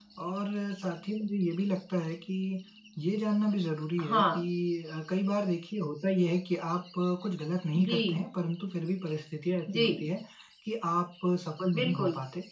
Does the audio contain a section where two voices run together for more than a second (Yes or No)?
No